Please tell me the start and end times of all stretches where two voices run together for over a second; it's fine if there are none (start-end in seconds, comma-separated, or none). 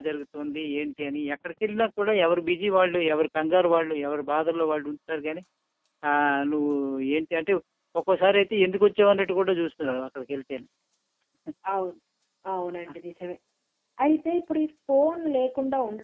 none